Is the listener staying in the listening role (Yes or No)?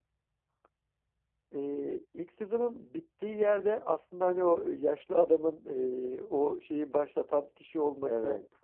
Yes